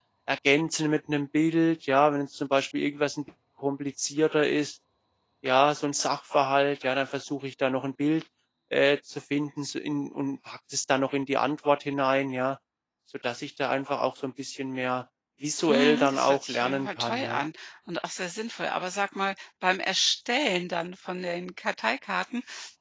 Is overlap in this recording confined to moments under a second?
No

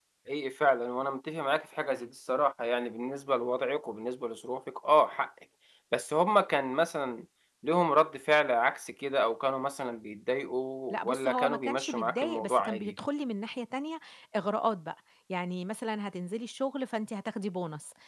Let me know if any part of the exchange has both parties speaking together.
Yes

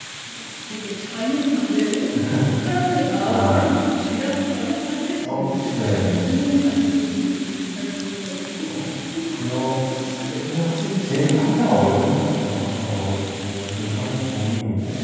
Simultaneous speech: Yes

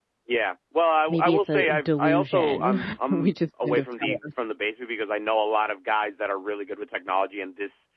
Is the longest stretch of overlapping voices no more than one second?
No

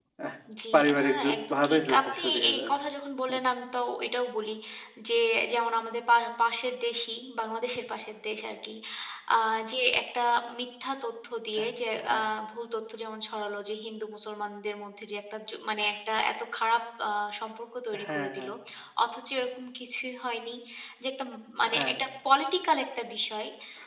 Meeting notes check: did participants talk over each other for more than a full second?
Yes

